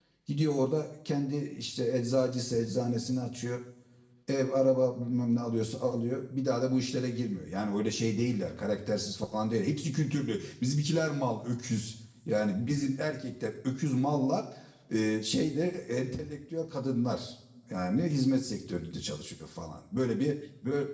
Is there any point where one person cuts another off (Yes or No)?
No